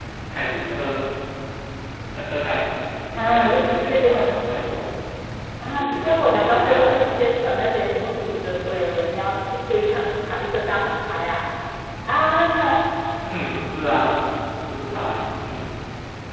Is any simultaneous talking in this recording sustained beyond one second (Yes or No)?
Yes